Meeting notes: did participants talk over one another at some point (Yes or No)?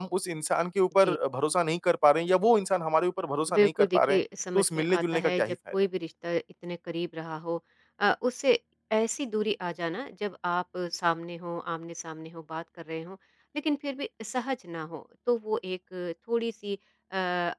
Yes